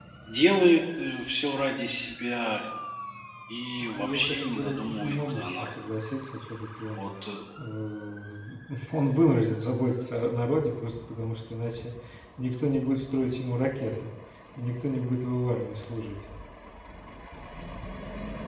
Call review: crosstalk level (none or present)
present